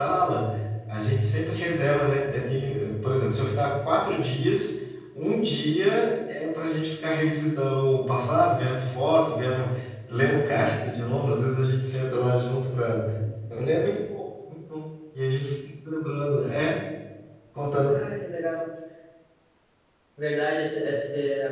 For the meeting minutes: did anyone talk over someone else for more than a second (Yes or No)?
No